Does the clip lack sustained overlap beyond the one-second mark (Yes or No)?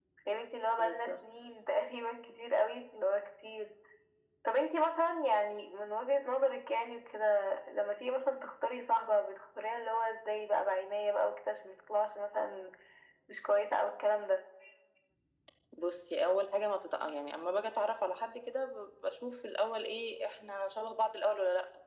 Yes